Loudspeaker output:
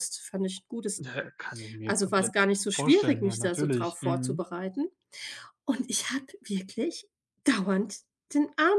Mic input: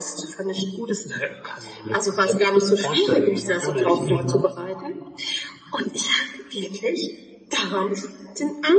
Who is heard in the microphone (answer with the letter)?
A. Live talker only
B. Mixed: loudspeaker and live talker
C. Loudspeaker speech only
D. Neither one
C